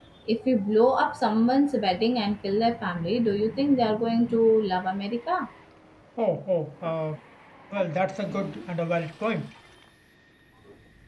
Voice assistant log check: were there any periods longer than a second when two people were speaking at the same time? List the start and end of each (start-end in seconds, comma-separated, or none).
none